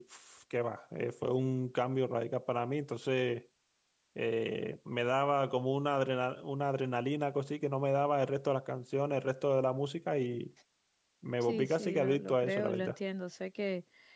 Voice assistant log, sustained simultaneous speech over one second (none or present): present